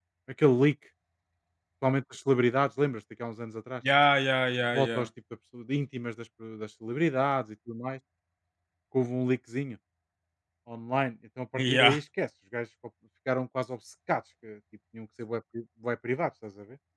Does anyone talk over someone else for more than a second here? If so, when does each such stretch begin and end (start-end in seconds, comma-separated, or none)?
none